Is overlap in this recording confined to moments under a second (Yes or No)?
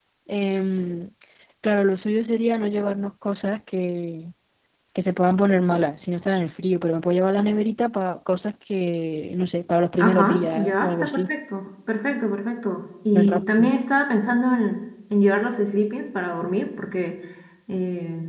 No